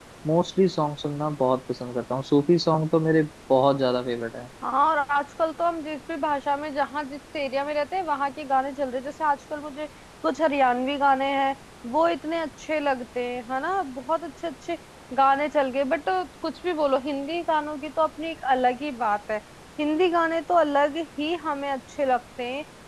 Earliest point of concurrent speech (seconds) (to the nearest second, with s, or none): none